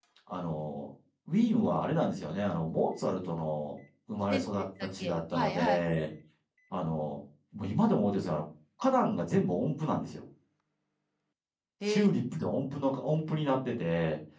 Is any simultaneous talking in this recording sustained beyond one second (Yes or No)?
Yes